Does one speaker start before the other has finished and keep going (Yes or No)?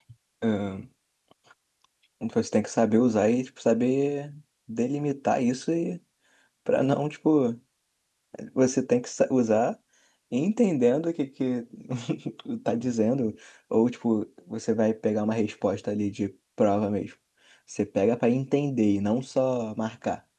No